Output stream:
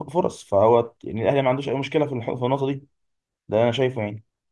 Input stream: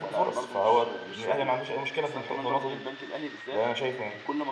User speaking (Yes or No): Yes